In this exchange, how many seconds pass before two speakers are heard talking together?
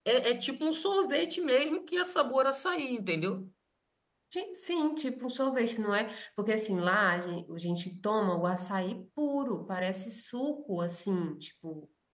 none

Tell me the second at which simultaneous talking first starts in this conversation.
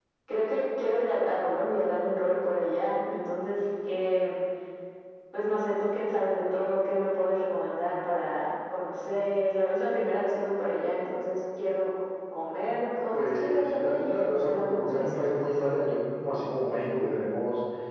13.1 s

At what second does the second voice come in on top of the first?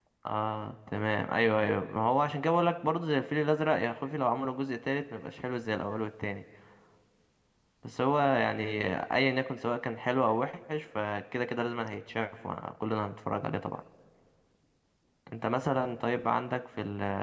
none

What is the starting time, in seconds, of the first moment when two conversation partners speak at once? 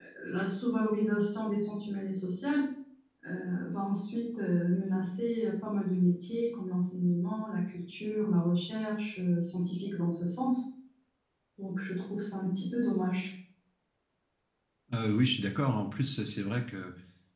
none

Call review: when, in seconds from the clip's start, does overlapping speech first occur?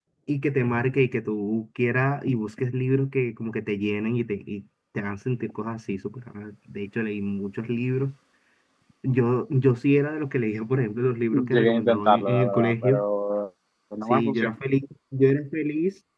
11.3 s

